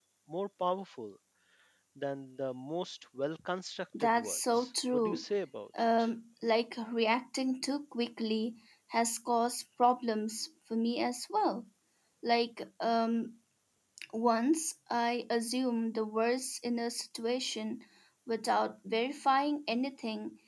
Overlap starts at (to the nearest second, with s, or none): 4 s